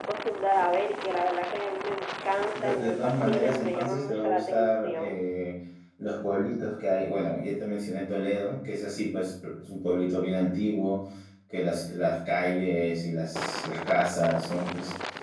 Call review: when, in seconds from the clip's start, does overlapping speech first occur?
2.5 s

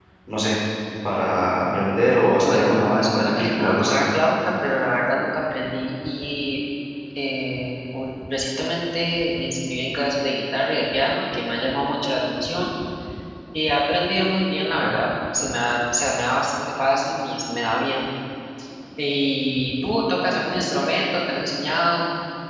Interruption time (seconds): 2.4 s

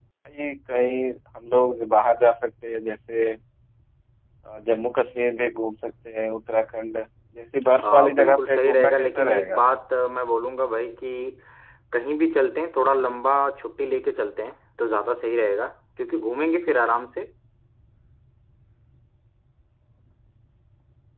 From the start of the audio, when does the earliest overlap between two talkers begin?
7.8 s

